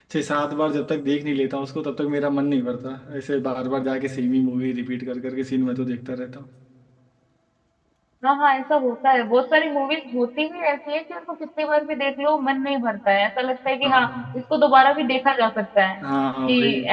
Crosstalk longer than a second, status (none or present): none